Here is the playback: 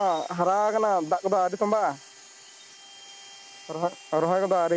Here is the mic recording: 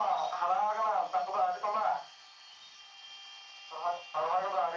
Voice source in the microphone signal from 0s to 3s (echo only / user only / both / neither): echo only